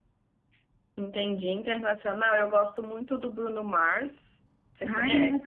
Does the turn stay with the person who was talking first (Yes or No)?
No